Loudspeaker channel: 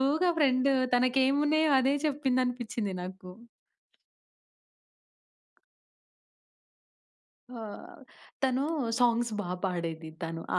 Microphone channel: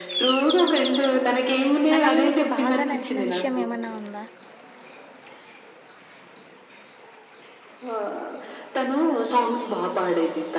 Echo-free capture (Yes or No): No